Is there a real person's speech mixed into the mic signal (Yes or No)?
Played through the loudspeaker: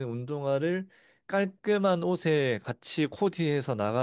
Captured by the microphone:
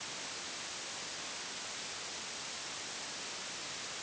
No